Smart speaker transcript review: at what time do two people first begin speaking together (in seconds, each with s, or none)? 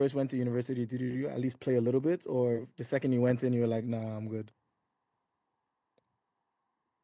none